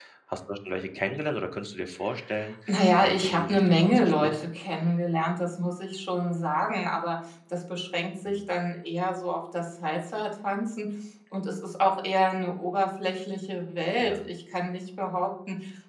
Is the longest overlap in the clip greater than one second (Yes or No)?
Yes